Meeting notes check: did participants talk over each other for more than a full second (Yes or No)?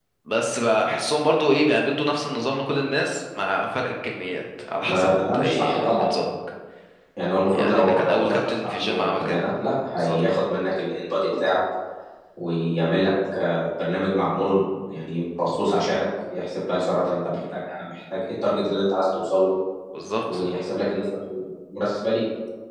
Yes